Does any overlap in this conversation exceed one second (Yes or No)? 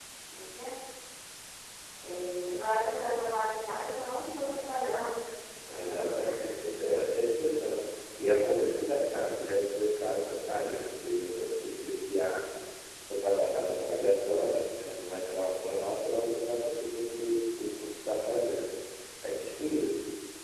No